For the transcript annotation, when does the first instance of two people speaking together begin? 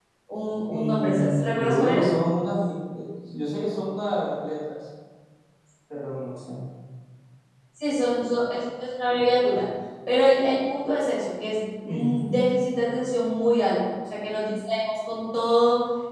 0.7 s

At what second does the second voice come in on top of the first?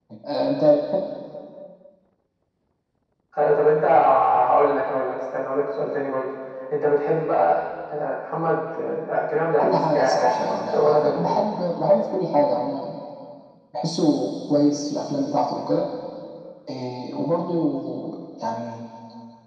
9.6 s

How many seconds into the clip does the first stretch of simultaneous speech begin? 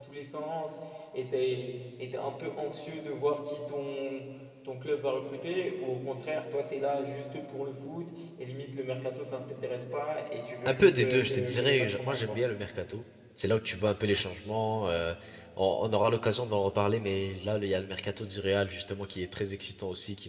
10.7 s

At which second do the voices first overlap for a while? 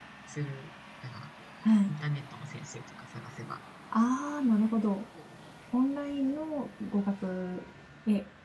none

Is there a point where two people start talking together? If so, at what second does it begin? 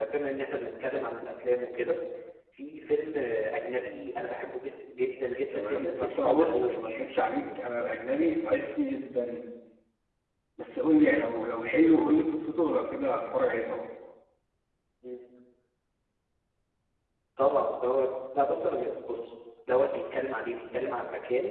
5.5 s

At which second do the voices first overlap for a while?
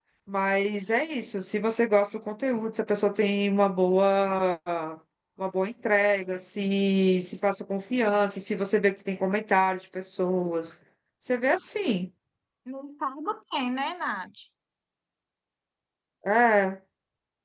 none

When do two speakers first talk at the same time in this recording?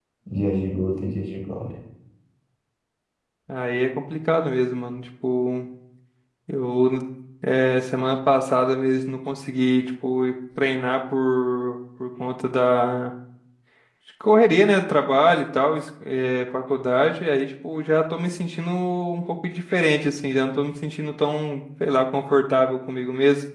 none

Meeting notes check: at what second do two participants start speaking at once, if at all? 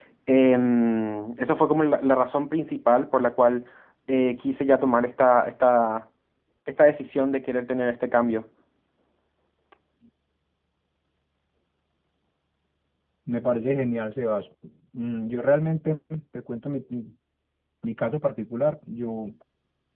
none

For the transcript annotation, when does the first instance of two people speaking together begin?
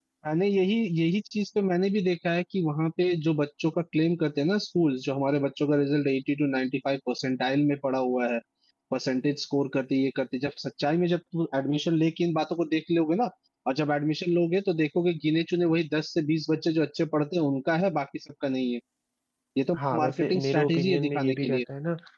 19.8 s

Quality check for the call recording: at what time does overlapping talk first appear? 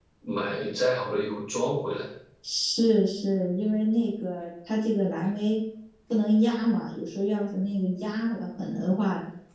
none

